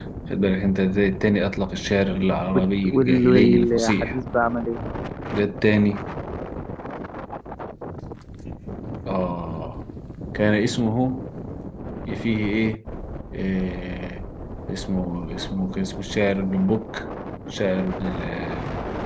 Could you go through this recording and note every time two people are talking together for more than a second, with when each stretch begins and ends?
2.5-4.2

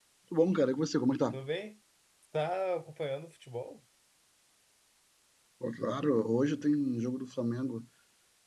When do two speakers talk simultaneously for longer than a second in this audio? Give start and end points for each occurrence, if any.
none

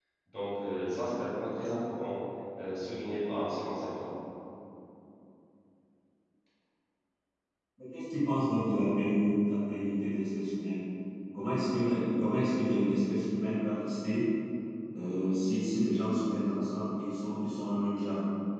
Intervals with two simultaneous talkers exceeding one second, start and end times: none

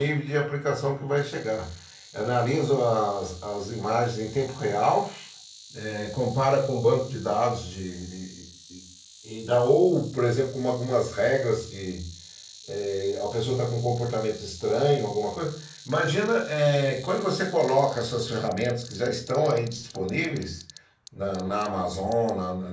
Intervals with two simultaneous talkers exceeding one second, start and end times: none

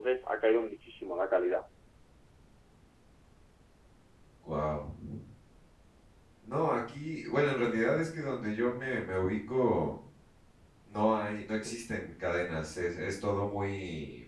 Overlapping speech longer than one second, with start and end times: none

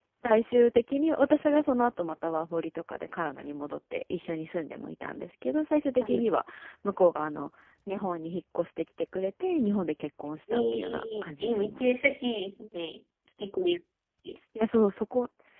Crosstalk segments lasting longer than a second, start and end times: 10.5-12.0

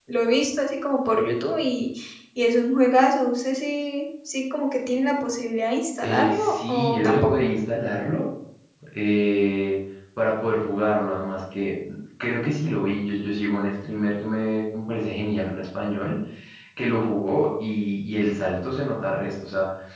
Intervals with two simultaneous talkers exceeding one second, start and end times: 6.0-7.5

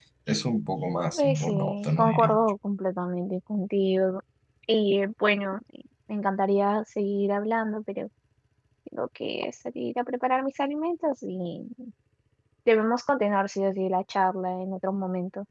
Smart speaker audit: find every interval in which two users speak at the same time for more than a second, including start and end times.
1.1-2.4

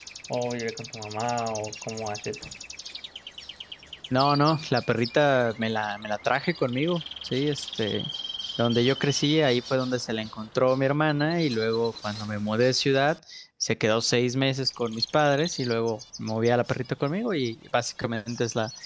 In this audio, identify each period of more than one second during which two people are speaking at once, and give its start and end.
none

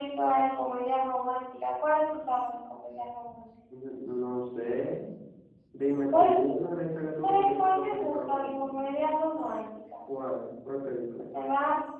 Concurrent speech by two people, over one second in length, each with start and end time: 7.1-8.9

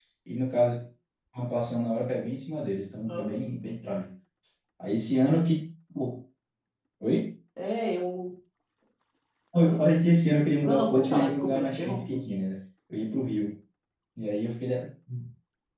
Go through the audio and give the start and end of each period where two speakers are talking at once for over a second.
10.6-12.2

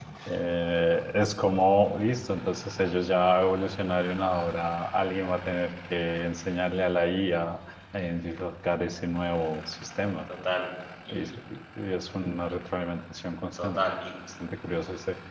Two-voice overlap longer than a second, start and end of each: none

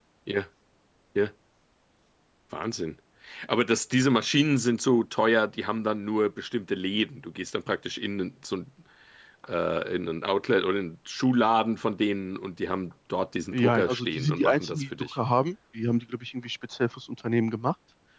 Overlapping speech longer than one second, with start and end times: 13.5-15.2

